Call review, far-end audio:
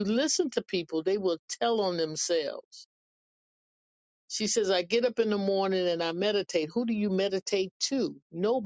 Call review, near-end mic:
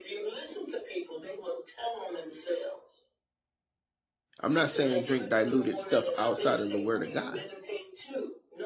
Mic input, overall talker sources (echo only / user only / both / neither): both